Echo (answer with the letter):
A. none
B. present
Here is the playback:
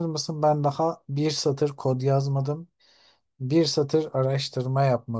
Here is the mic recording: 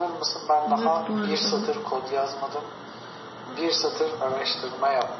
B